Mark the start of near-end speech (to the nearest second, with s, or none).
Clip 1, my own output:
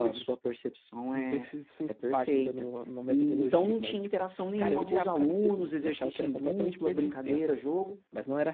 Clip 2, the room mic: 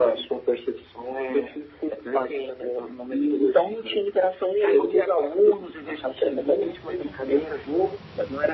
none